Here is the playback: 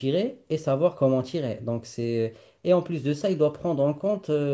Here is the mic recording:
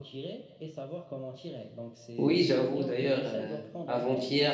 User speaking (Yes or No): Yes